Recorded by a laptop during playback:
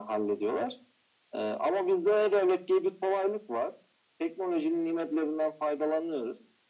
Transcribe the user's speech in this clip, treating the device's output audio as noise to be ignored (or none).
none